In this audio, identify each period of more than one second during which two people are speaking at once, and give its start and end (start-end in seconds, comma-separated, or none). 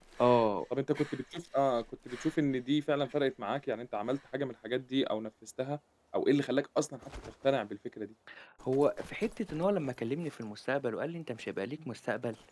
none